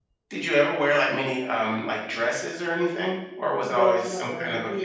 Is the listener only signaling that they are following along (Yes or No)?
No